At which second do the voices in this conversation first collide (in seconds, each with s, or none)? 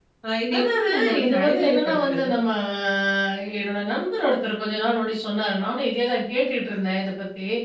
0.6 s